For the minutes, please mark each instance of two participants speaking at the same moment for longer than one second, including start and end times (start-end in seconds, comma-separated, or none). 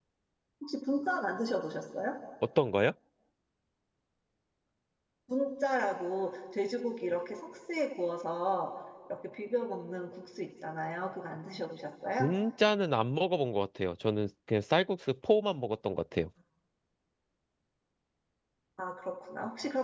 none